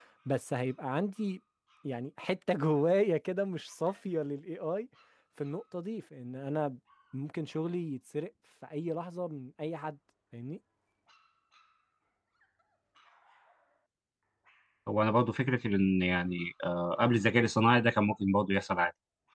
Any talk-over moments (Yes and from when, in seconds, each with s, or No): No